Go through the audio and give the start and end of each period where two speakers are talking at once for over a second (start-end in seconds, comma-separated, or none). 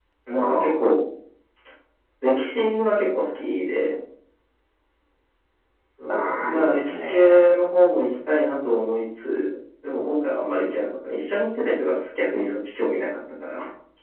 6.1-7.5